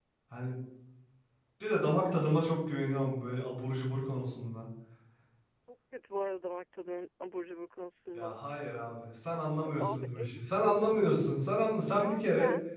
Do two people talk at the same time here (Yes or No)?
Yes